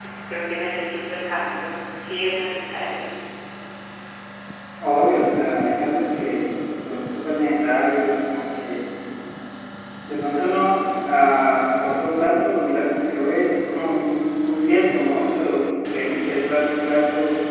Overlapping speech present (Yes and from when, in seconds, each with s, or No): No